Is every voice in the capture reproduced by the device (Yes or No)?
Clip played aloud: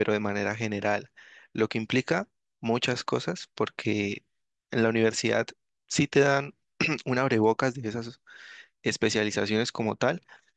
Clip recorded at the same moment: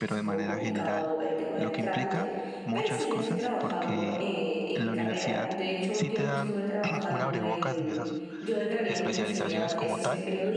No